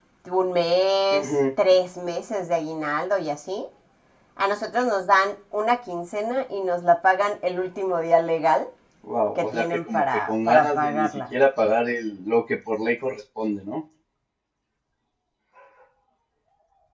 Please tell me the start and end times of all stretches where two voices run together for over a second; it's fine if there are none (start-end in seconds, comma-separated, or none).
9.4-11.1